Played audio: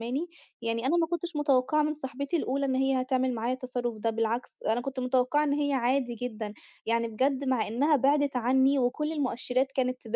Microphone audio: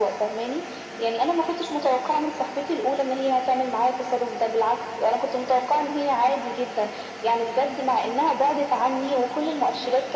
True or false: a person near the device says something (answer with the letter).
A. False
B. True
A